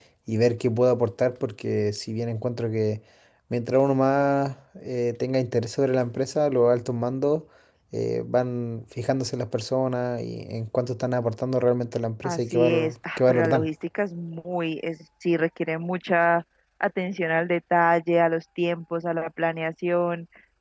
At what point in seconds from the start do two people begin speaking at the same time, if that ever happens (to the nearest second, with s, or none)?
12 s